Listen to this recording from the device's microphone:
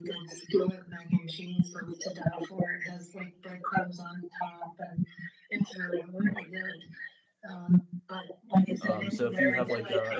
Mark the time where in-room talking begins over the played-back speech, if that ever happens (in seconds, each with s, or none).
8.8 s